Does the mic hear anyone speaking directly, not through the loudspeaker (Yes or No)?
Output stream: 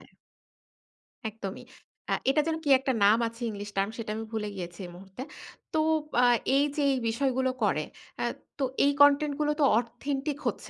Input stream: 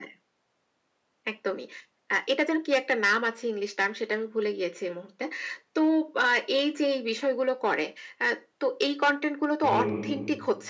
Yes